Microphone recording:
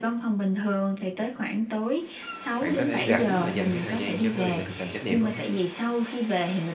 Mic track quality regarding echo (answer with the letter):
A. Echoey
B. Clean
A